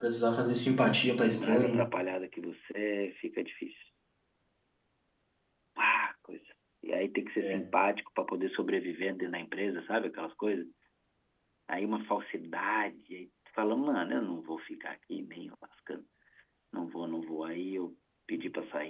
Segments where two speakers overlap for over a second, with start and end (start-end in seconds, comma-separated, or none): none